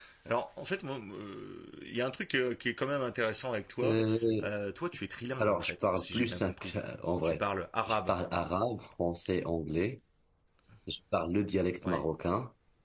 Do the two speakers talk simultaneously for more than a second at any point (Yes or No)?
Yes